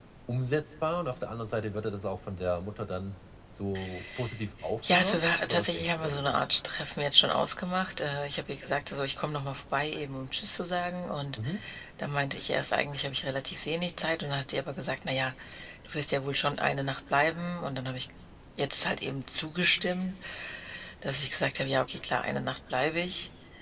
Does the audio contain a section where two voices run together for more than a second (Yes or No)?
Yes